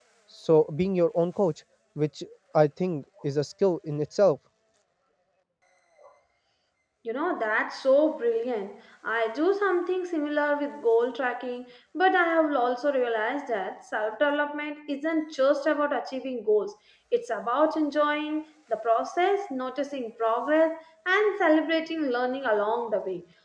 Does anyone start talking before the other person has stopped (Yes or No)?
No